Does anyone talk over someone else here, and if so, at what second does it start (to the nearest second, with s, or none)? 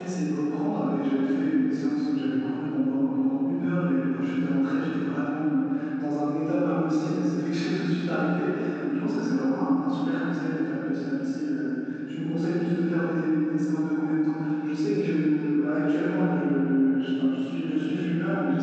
none